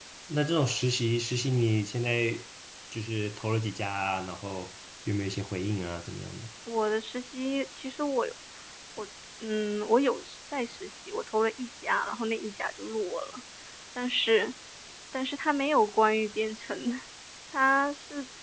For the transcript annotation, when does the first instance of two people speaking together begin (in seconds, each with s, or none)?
none